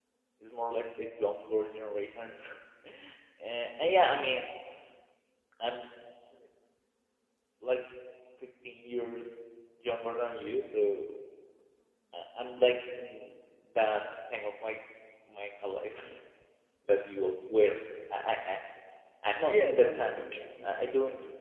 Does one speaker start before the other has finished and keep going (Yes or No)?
Yes